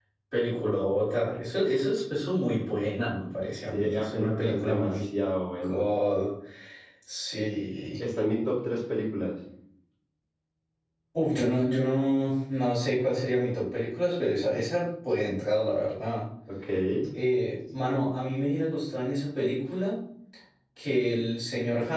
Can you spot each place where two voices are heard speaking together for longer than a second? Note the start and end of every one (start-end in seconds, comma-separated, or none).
3.7-5.0